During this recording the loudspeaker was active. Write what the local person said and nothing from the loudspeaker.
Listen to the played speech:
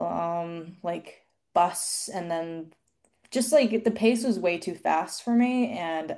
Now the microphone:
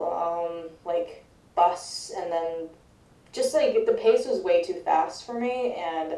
none

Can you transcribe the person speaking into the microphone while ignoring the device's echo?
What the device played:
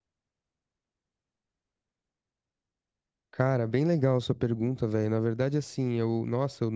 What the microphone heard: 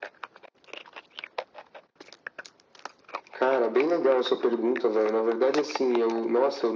none

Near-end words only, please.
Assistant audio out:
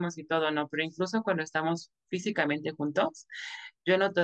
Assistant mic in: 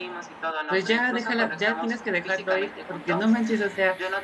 Pues ya déjala, ya tienes que dejarlo ir, porque no manches, o sea,

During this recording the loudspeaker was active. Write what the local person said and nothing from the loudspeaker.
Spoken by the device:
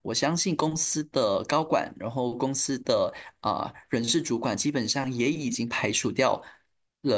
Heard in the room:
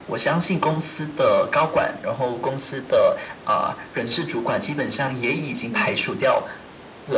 嗯，

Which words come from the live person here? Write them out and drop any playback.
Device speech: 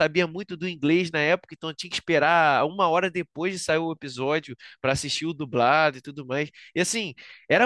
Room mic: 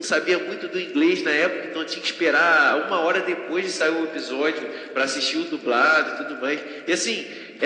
none

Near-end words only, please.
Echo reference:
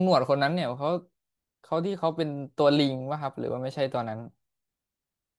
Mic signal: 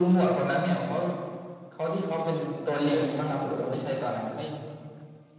เดินกันได้ปกติเลยครับไม่

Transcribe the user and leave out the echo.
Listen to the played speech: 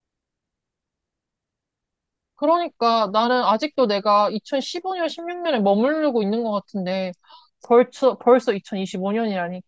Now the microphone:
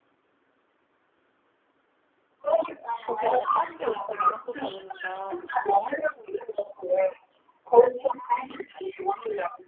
거기에 내가 빠지지 않고 나갔었다 보니까

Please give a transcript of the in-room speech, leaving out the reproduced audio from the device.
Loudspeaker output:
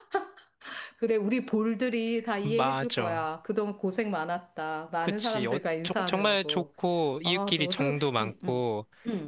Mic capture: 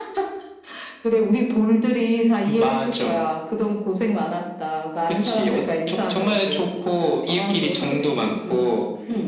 none

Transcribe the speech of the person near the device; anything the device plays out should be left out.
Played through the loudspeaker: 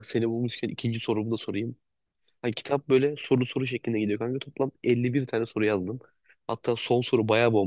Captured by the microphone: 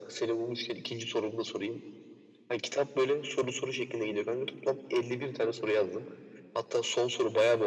none

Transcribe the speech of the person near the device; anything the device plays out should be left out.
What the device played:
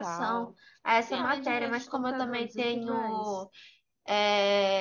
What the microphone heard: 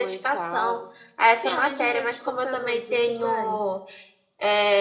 none

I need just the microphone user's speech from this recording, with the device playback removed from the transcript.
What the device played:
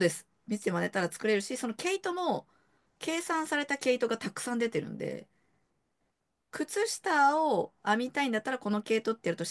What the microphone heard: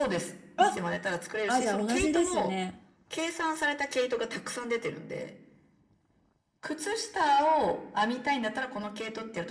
あ、あ、じゃあ同じですね。

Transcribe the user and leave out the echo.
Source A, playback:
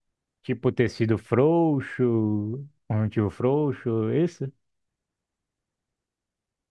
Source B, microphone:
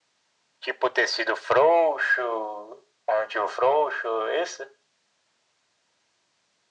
none

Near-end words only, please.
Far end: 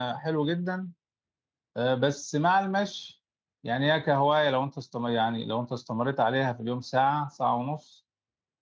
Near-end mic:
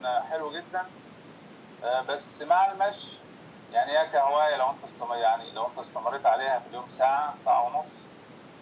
none

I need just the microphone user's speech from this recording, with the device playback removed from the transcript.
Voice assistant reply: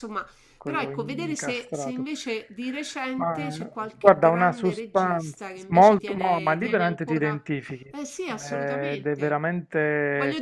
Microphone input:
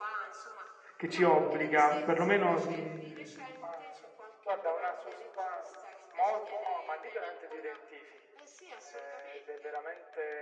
che ci obbliga, perlomeno mm,

